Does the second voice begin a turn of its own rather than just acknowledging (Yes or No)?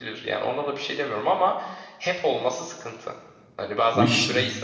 No